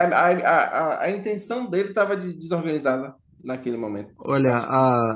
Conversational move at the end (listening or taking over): taking over